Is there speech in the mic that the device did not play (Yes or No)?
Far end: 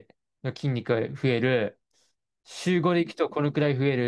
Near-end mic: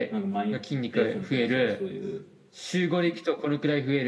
Yes